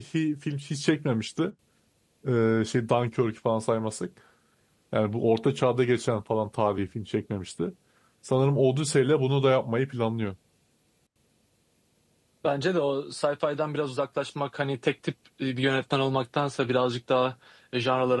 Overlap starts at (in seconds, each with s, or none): none